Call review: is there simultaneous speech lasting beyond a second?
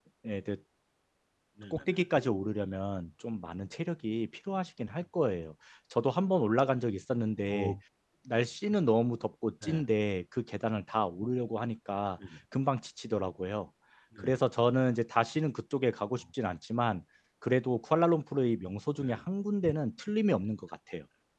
No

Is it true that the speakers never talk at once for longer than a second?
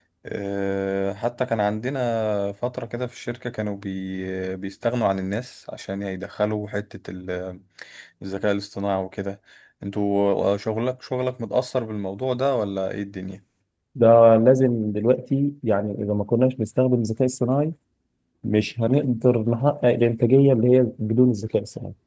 Yes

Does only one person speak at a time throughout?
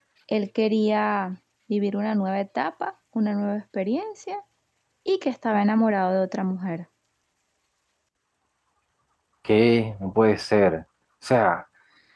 Yes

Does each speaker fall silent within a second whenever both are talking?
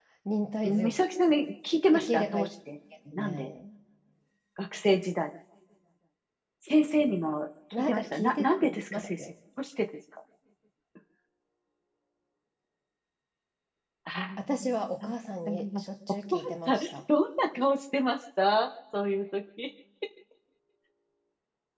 No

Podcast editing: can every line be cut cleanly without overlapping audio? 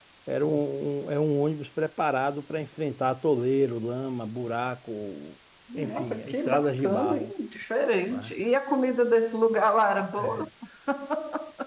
No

